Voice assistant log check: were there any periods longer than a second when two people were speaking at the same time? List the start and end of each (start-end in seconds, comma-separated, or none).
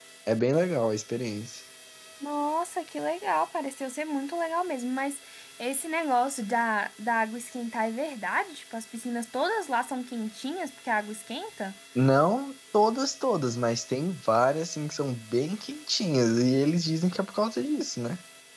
none